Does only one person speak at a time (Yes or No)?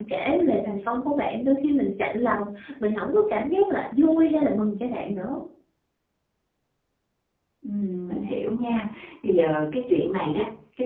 Yes